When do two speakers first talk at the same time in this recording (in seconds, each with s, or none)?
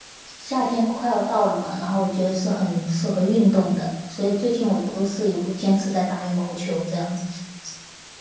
none